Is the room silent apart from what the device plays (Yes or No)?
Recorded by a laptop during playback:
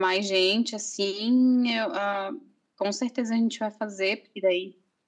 Yes